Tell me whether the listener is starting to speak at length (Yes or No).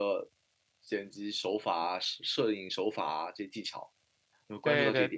Yes